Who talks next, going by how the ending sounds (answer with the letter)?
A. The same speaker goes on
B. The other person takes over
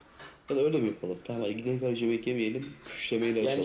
A